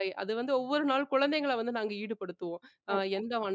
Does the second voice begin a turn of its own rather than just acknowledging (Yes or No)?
No